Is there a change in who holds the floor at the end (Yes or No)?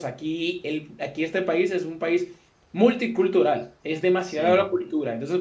No